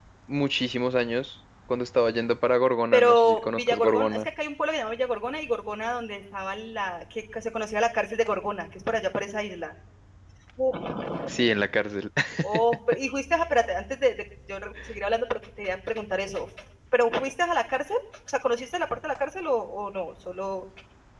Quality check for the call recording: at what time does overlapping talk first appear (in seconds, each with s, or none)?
2.9 s